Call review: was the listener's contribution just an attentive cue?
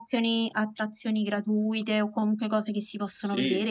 No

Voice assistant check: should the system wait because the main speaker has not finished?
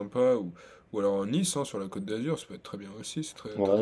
No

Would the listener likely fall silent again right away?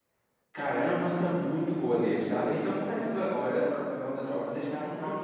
Yes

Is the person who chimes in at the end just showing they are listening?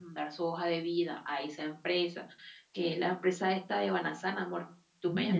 No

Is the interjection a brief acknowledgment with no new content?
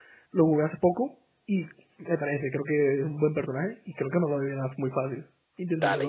No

